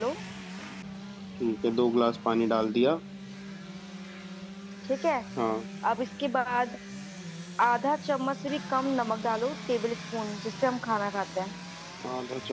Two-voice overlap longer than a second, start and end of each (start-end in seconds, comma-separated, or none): none